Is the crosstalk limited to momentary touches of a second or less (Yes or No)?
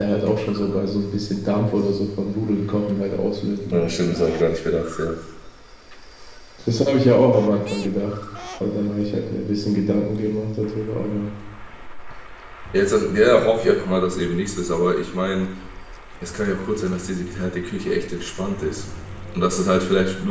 Yes